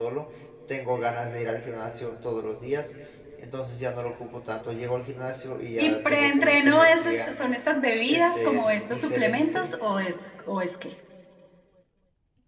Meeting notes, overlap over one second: present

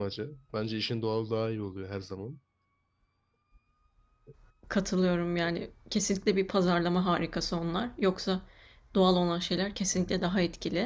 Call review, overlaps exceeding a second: none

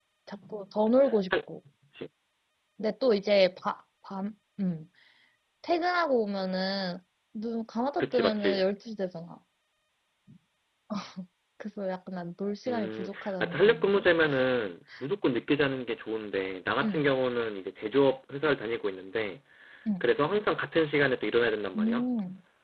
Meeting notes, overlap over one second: present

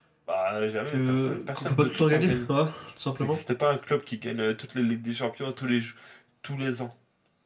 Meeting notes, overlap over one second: present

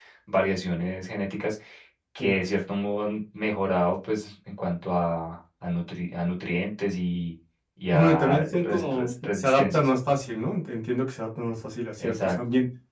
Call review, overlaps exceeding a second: present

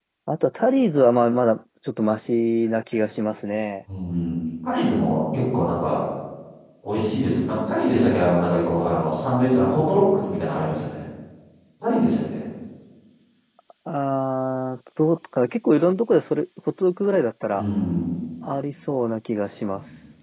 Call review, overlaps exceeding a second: none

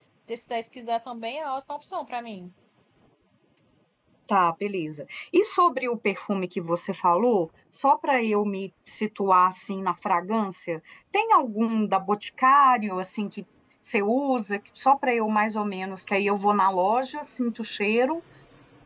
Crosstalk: none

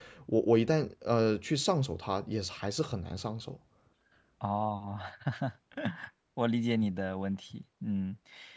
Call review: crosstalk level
none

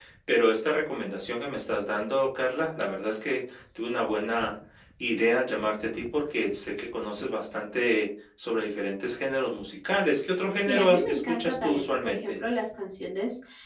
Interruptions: present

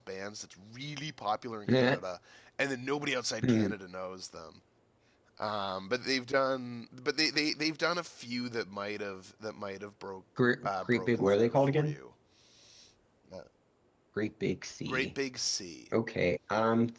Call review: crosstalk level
present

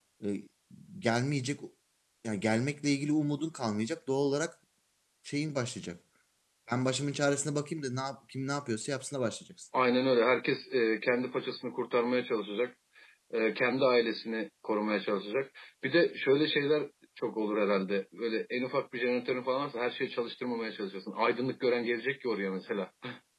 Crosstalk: none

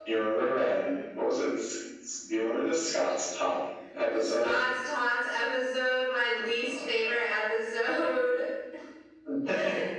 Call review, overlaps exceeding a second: none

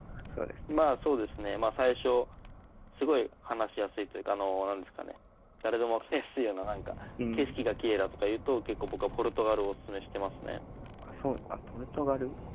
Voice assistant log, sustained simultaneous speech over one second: none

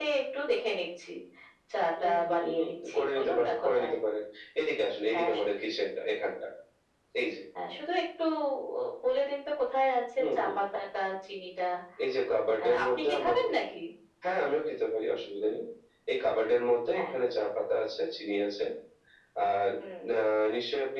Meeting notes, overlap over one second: present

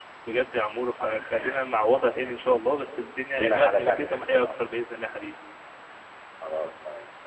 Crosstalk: present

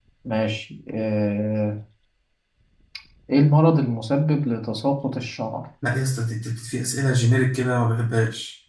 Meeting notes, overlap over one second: none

